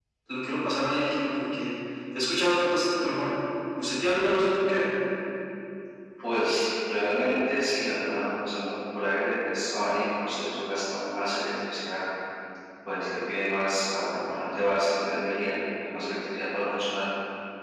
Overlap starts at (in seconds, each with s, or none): none